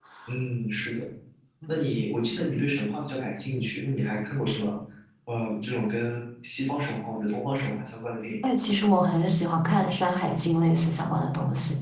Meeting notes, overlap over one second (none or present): none